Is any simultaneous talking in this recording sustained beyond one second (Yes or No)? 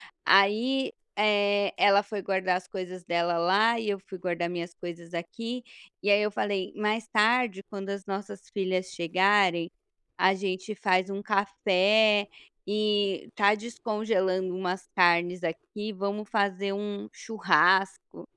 No